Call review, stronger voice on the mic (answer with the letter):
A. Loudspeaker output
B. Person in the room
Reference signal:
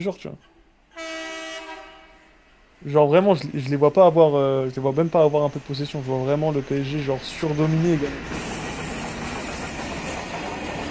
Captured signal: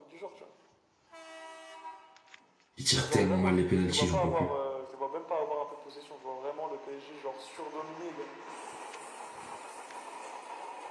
B